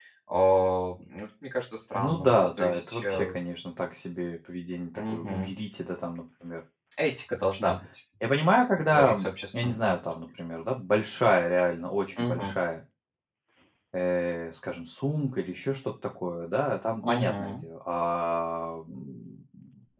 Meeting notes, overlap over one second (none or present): present